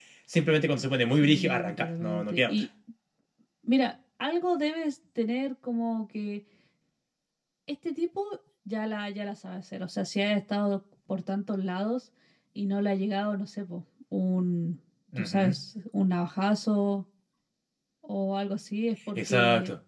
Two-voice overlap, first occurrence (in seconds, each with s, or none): 1.2 s